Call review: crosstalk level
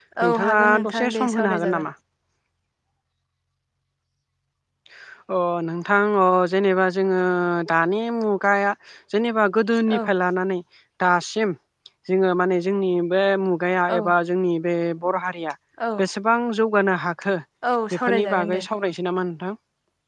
present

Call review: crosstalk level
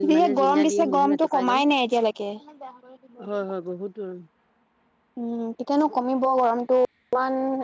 present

